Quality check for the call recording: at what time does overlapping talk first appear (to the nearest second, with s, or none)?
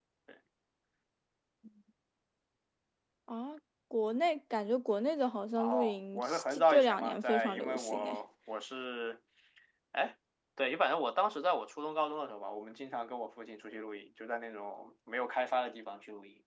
6 s